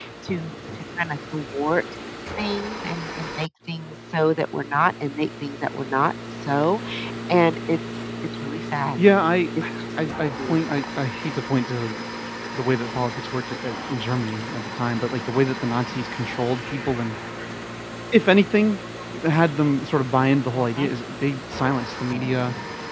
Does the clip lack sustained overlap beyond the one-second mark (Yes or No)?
Yes